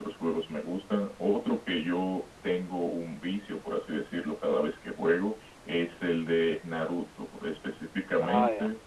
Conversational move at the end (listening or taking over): listening